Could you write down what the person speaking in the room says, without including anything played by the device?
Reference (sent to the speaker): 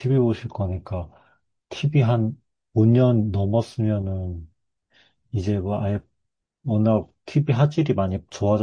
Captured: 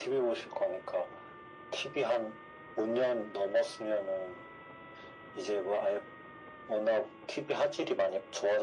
none

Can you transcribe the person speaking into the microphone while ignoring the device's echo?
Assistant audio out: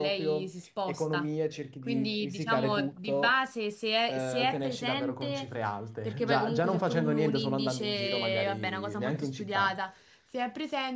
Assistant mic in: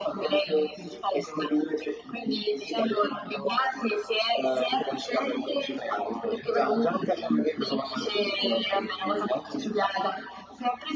none

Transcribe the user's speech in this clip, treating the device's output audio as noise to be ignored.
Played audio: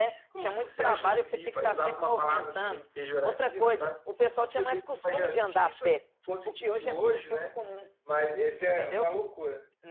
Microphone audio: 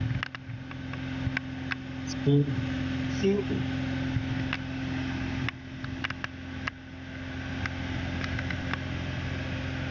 Sim. Sim.

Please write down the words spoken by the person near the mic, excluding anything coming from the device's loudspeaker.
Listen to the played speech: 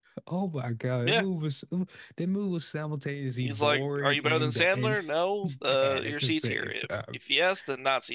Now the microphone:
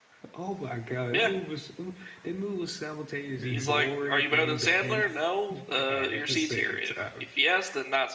hmm

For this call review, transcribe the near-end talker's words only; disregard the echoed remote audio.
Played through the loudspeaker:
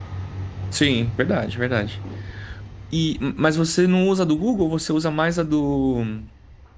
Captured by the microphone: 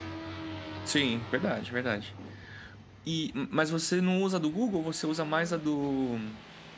none

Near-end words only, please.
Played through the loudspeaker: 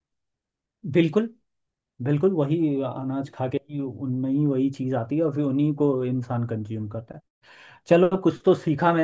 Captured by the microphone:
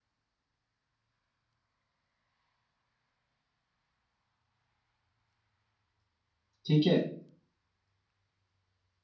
ठीक है तो

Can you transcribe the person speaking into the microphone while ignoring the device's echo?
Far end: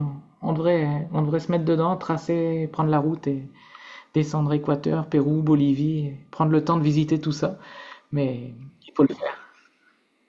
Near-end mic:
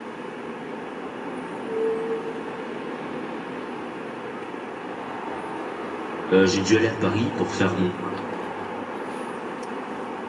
euh, j'ai dû aller à Paris pour faire mon

